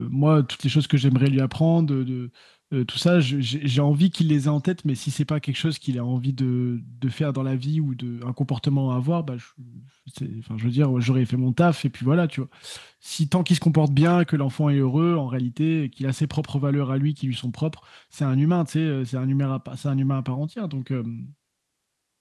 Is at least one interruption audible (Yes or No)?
No